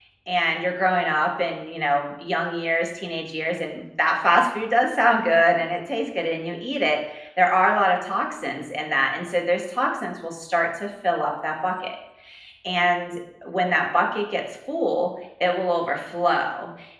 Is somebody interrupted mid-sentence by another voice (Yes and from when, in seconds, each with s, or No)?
No